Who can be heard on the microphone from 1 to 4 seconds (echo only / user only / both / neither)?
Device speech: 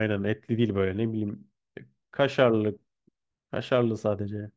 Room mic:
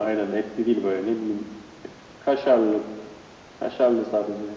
echo only